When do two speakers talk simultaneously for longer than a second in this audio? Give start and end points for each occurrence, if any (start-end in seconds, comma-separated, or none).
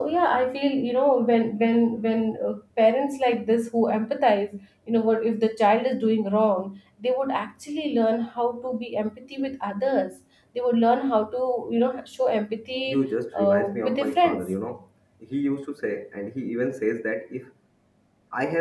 12.9-14.5